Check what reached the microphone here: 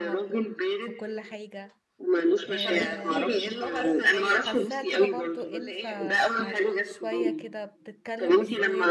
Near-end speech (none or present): present